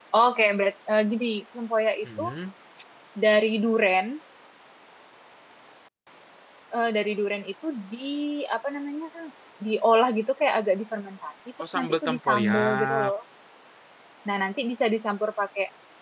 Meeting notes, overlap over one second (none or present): present